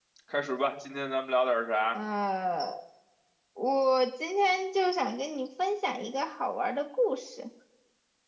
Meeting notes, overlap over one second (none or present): none